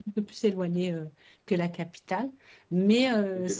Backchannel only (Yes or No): Yes